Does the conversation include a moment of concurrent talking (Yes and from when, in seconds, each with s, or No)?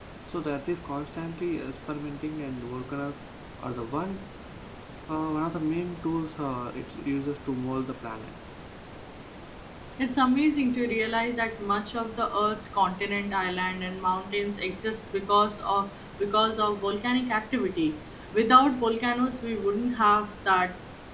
No